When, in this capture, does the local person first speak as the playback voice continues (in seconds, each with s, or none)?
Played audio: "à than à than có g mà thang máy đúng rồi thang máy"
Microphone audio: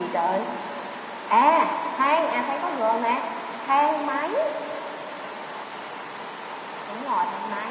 none